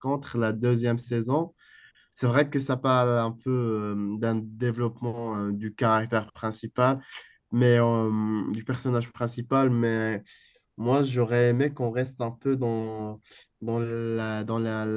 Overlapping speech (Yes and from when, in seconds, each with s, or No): No